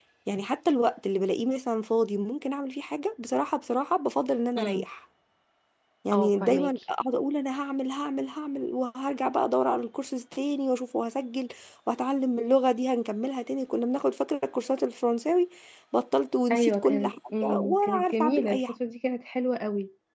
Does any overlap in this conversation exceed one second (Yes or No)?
Yes